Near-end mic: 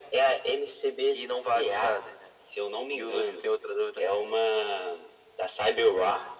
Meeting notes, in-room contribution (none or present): none